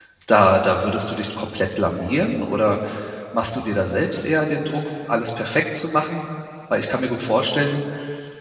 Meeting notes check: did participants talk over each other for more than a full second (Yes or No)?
No